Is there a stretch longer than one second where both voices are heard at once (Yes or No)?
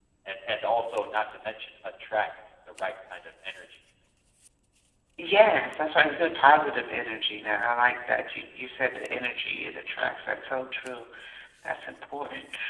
No